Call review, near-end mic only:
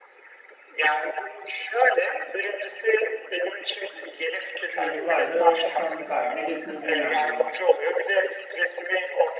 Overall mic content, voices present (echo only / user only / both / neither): both